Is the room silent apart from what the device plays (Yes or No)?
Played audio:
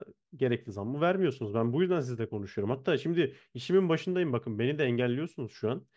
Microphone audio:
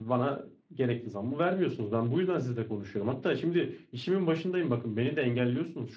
Yes